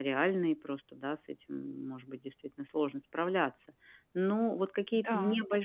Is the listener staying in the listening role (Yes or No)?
Yes